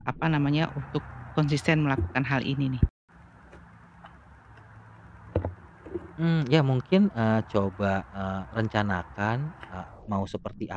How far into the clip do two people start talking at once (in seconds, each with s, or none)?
none